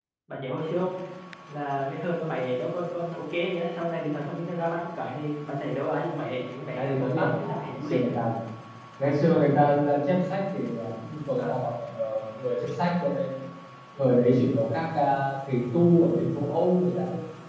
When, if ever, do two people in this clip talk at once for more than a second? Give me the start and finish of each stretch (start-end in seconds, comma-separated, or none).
6.8-8.2